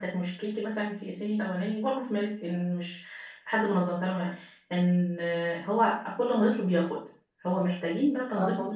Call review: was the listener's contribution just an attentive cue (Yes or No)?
Yes